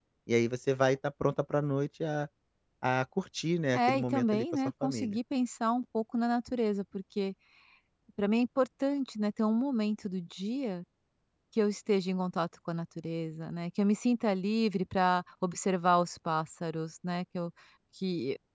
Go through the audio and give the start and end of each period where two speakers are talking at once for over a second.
3.7-5.2

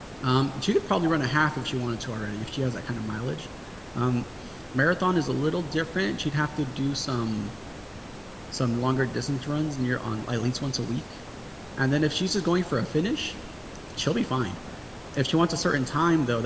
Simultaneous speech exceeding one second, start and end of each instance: none

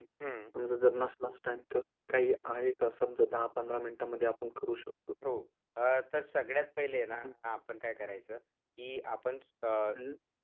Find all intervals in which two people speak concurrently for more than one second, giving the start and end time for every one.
none

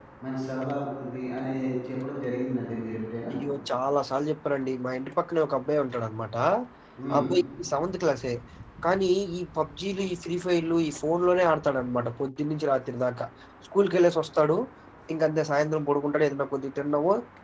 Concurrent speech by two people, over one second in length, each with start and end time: none

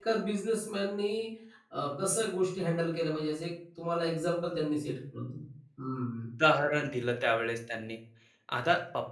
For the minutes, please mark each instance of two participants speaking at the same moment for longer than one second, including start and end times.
none

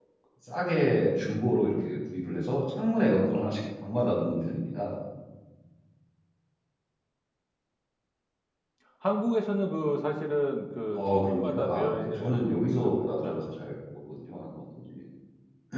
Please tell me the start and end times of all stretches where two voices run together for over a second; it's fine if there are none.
11.0-13.6

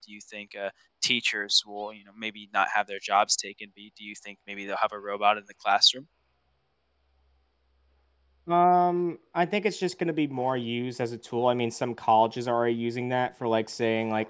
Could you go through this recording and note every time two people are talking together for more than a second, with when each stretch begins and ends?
none

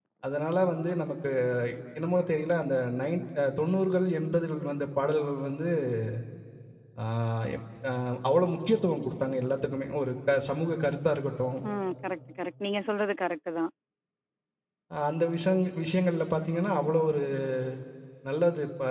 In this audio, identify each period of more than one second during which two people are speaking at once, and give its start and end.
none

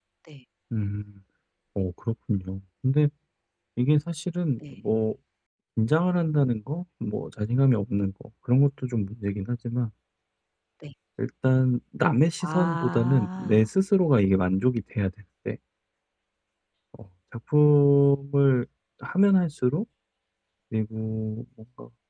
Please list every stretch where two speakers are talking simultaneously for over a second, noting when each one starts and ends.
12.4-13.6

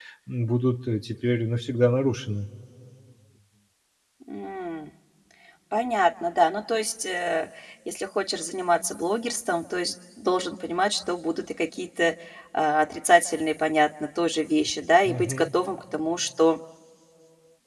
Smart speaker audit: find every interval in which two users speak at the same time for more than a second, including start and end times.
none

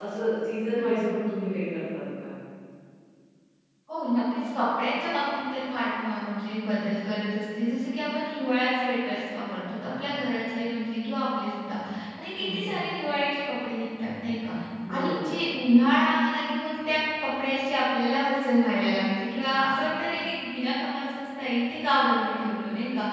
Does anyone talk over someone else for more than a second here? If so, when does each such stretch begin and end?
none

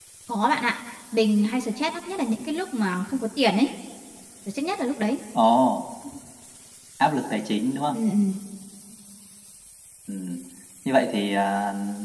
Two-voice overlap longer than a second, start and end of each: none

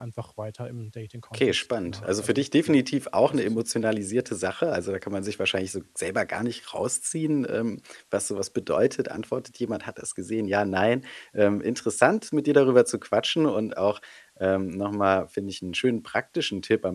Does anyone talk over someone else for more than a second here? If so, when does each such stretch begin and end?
1.3-2.8

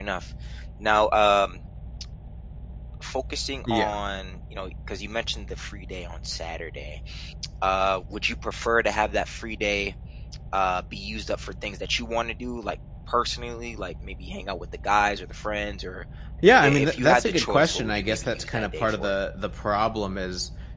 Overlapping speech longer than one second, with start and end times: 16.6-19.1

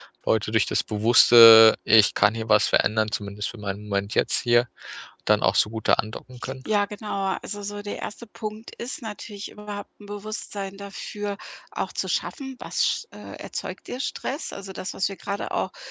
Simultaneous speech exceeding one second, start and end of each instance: none

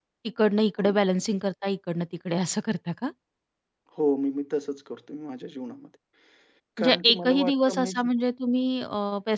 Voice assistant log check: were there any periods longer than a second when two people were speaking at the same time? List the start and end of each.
6.8-8.1

